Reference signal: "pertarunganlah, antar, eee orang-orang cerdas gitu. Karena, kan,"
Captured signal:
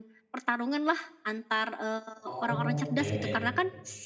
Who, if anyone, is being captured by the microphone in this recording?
both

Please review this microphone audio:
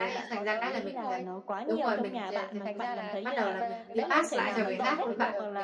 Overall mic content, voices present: both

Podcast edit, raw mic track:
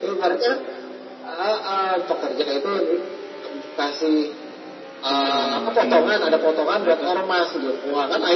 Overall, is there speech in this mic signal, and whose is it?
both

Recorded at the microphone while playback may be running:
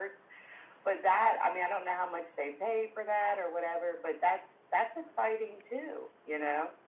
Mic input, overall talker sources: echo only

